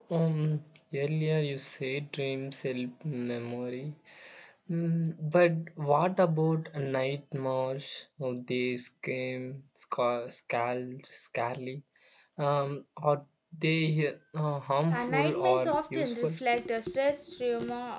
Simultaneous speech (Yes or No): Yes